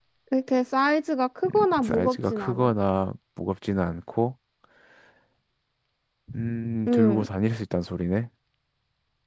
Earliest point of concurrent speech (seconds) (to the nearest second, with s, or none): 1 s